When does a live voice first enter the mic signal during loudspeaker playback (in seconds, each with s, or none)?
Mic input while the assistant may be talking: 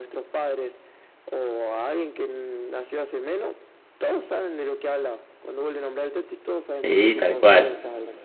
6.7 s